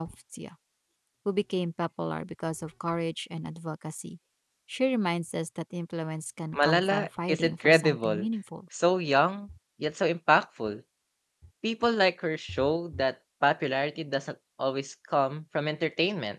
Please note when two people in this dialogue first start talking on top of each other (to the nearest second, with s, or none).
7 s